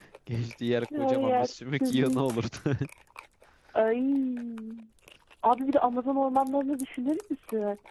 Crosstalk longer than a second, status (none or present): present